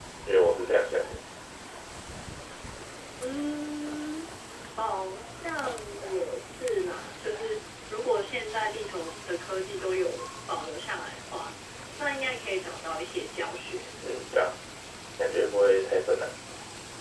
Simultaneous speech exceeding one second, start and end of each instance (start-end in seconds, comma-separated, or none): none